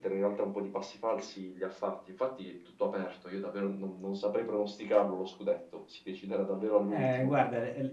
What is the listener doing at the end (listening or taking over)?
taking over